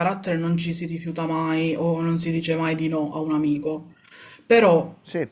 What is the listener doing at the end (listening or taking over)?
listening